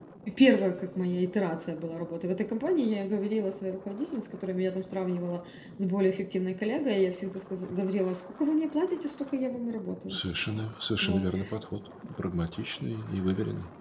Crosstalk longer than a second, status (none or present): none